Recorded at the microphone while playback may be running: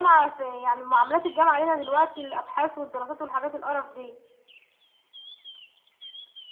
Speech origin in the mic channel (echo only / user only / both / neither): echo only